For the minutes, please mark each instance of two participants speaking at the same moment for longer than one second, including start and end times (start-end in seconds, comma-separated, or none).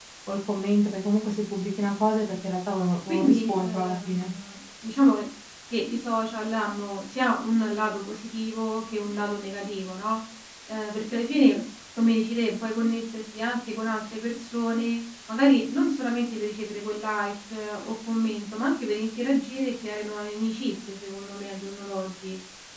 3.1-4.3